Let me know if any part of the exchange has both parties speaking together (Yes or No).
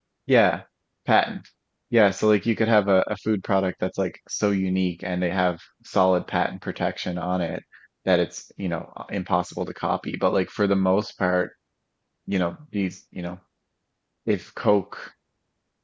No